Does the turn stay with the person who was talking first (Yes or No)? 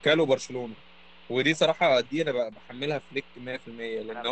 Yes